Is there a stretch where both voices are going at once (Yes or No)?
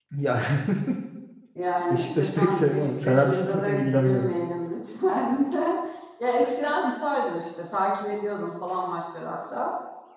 Yes